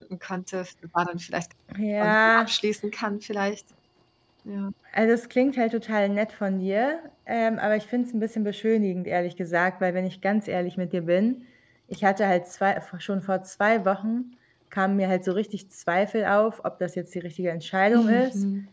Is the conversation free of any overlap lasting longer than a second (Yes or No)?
Yes